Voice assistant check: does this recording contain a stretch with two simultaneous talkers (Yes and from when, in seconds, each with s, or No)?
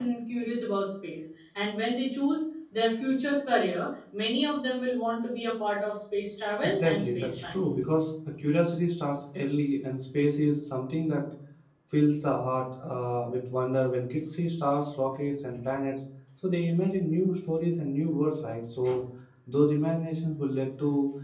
Yes, from 6.6 s